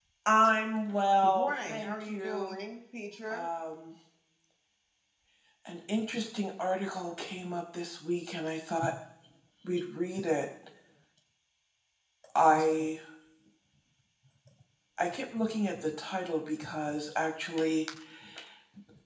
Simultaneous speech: Yes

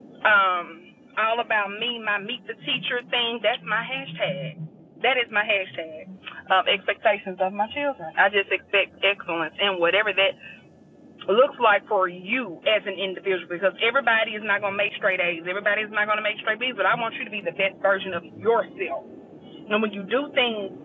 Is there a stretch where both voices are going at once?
No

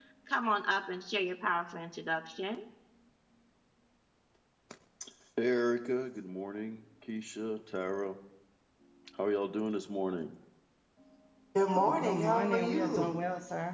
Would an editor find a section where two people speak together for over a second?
Yes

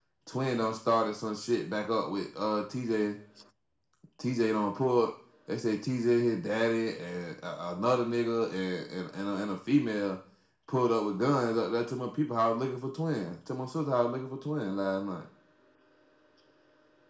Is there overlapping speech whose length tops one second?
No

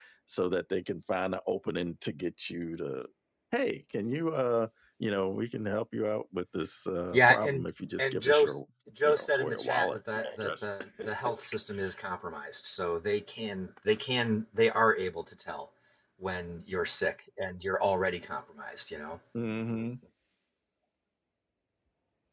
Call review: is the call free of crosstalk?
No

